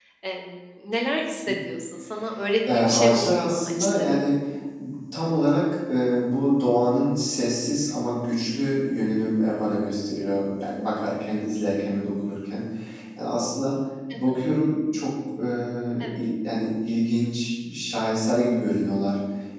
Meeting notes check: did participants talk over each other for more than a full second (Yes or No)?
Yes